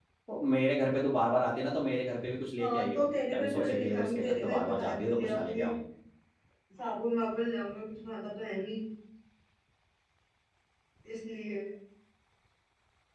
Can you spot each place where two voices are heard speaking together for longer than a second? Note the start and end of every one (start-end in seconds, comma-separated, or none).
2.6-5.7